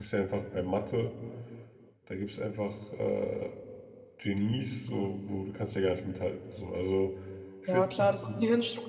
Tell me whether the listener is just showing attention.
No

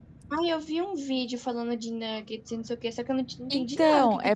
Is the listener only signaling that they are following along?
No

